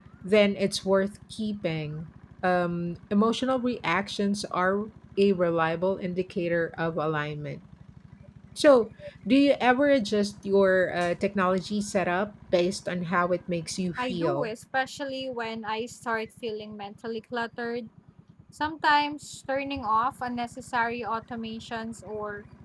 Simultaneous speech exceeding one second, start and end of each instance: none

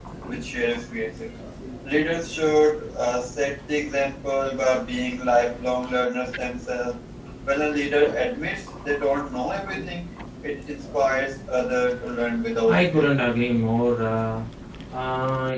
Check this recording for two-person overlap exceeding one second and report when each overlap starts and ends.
none

